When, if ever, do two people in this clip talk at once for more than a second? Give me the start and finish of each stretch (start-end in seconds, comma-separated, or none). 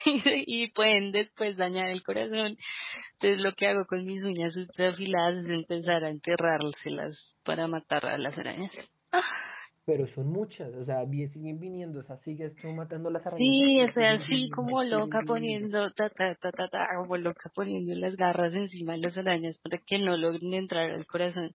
13.4-15.7